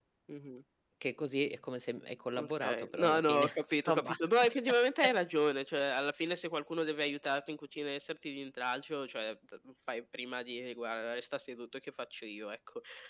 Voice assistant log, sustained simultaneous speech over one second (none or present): present